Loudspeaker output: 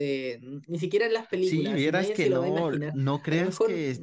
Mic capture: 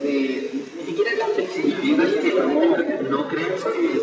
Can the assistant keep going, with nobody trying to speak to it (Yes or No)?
Yes